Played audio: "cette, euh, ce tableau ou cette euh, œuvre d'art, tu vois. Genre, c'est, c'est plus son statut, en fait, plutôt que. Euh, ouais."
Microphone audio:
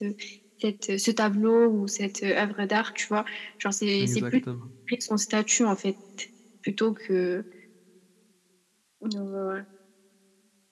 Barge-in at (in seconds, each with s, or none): 4.0 s